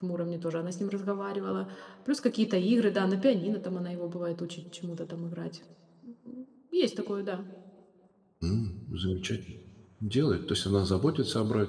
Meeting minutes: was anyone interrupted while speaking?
No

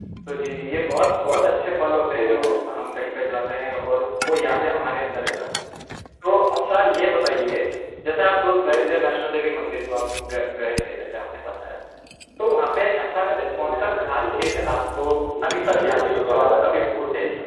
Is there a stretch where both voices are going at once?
Yes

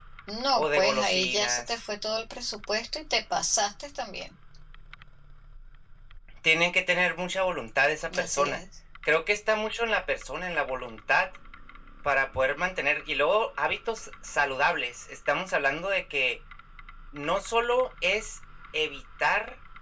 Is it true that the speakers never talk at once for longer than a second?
No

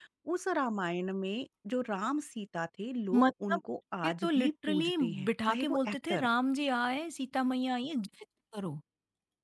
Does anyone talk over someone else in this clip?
Yes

